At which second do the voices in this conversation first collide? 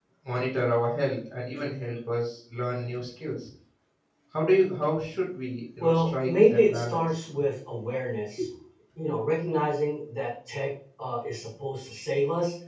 5.8 s

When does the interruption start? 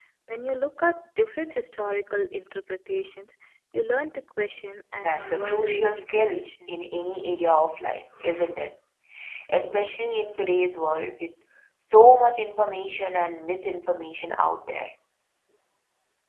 5.0 s

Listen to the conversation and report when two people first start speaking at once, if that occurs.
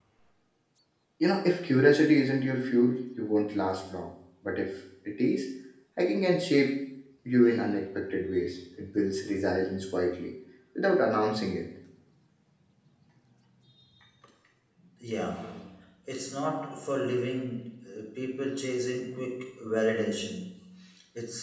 none

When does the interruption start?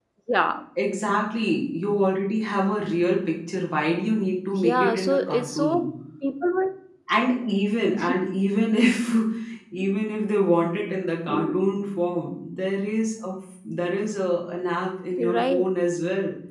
4.6 s

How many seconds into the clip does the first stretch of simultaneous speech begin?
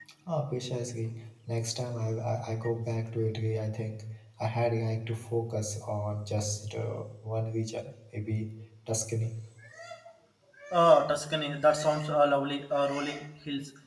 none

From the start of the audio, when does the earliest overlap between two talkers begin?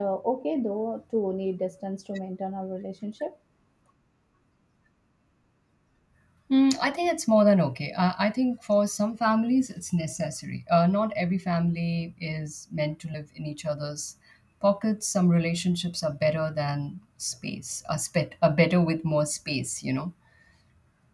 none

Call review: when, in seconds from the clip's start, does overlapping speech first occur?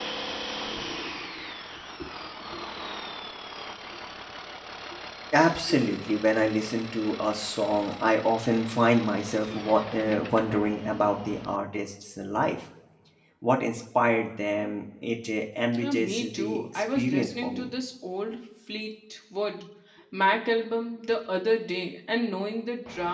15.8 s

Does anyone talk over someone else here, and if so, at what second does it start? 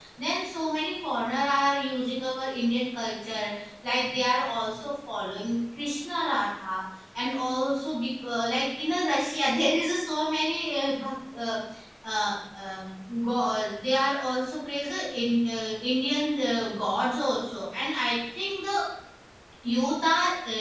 none

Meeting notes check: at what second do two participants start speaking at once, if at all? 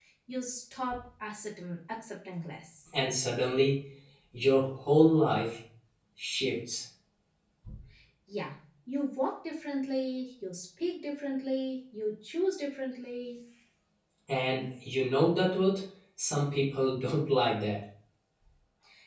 none

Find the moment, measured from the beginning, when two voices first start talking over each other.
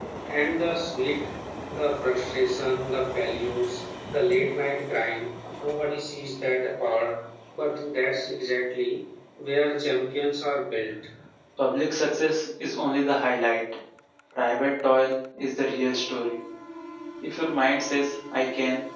none

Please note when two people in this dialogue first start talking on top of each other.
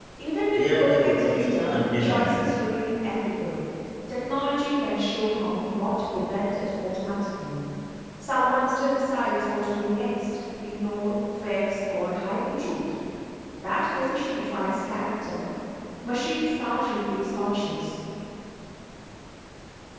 0.5 s

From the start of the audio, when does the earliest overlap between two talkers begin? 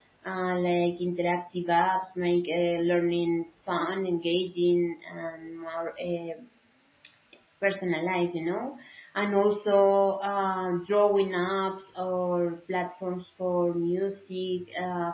none

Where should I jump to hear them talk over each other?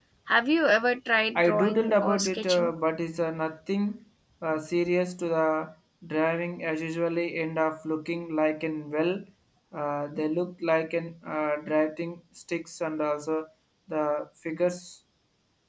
1.4 s

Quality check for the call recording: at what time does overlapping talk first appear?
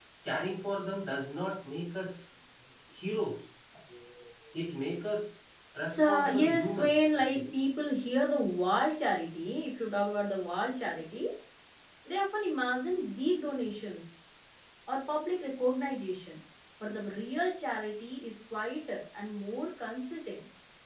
5.9 s

